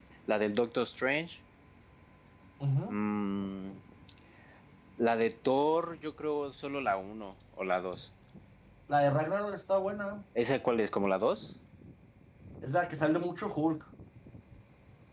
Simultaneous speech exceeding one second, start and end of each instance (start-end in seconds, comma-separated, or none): none